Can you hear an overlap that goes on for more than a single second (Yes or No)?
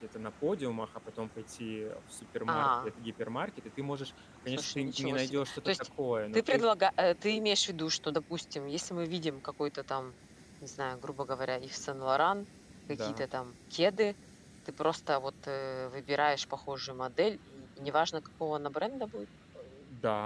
Yes